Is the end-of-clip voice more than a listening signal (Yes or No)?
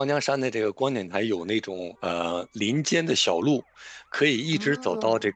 No